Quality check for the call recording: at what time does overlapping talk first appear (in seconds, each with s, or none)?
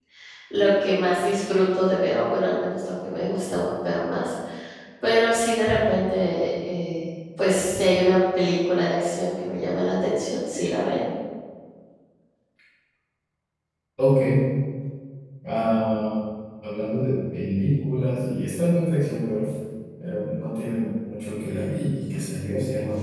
none